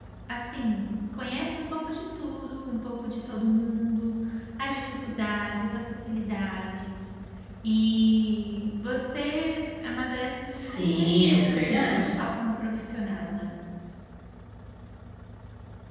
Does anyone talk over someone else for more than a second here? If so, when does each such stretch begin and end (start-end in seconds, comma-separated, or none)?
10.5-12.1